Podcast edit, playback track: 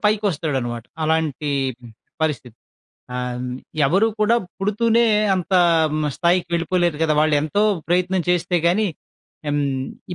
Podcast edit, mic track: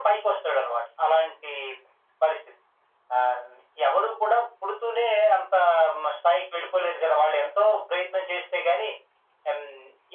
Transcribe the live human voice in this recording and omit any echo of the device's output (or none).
none